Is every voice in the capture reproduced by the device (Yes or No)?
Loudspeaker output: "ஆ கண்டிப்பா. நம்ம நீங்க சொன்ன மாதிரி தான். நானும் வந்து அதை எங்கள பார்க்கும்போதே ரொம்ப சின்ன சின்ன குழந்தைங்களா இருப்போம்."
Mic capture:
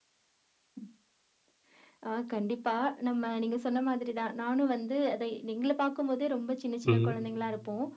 No